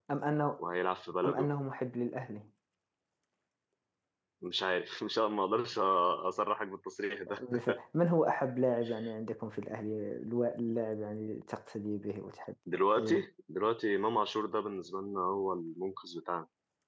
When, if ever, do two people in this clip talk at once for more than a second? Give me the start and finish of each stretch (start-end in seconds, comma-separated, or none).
none